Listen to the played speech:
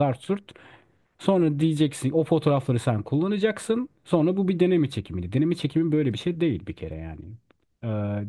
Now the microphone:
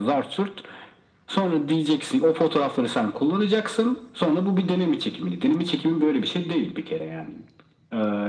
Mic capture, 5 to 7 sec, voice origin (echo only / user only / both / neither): echo only